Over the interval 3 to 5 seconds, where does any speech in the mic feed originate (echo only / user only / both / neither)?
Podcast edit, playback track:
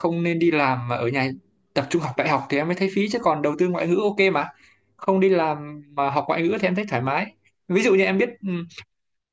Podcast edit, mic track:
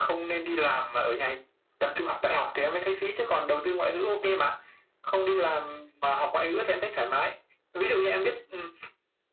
echo only